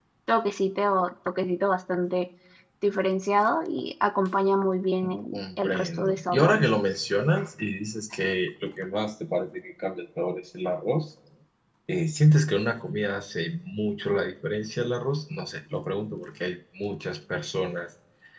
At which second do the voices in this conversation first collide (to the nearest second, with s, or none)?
5 s